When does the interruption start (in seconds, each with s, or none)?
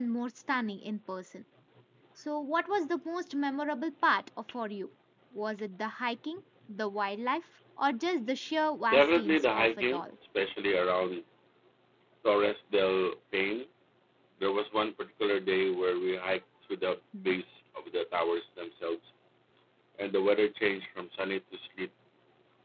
8.9 s